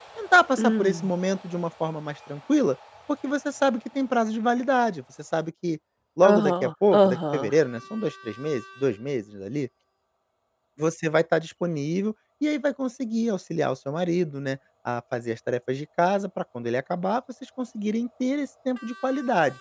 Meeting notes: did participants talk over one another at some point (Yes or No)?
Yes